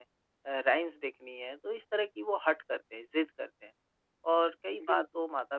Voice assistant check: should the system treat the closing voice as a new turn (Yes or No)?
No